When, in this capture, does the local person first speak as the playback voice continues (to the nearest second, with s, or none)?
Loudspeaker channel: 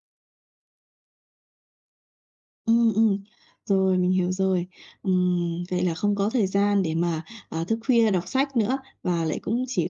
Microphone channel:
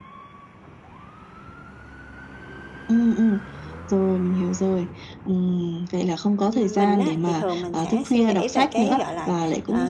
7 s